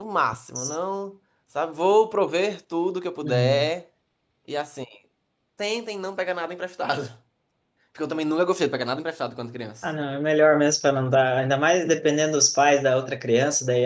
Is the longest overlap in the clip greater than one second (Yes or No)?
No